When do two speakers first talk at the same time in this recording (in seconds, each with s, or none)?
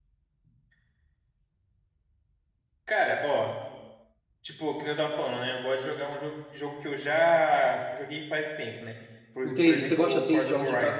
9.4 s